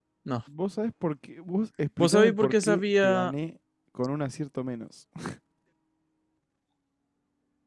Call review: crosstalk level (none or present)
present